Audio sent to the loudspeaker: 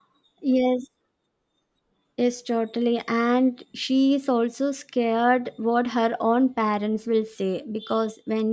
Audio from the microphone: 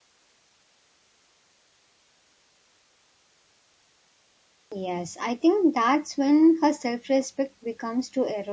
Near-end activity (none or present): present